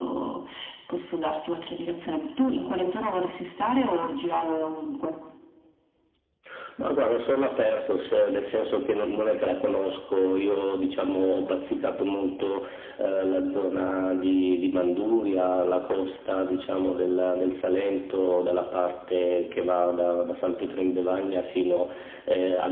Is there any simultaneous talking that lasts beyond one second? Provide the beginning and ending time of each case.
none

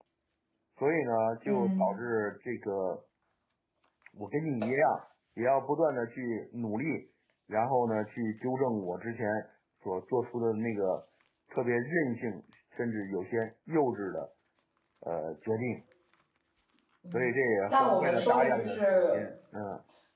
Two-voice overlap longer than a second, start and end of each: 17.7-19.2

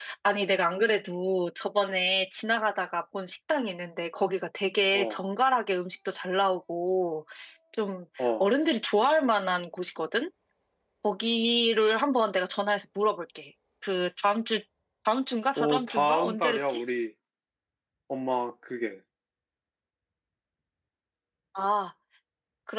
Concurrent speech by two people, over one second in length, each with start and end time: 15.6-16.8

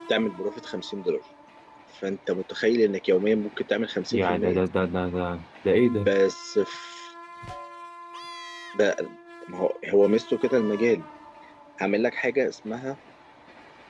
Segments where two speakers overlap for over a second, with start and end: none

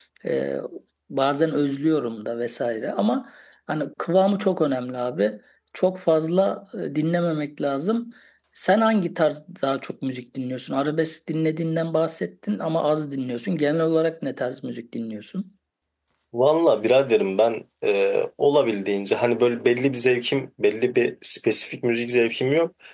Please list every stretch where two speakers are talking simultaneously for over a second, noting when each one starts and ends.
none

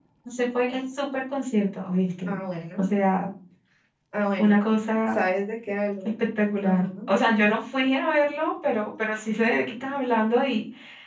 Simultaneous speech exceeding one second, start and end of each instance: none

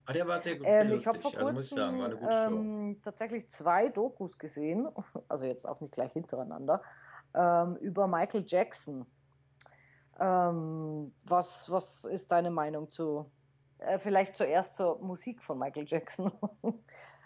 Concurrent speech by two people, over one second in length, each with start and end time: 0.6-2.7

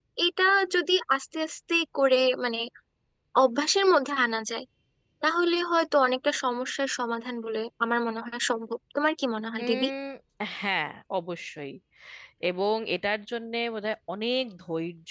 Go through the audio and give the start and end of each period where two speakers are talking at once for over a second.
none

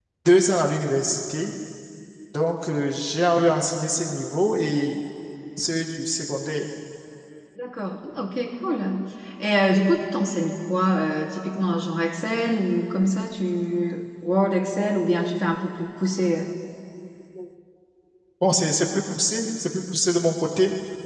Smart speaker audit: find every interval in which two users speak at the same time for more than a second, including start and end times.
none

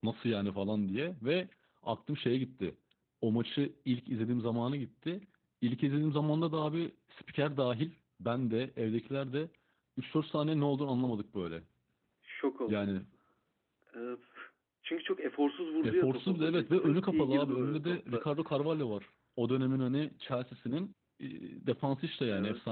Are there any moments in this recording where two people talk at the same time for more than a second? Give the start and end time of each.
15.8-18.3

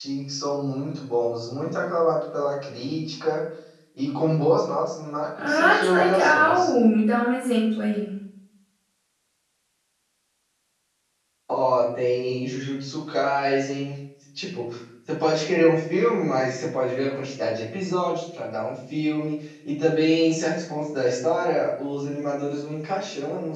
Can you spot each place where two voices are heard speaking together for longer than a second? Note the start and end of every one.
5.4-6.7

